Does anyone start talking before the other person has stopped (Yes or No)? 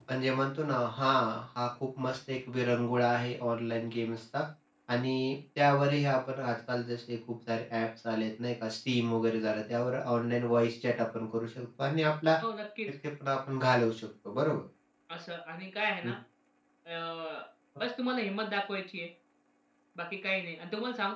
No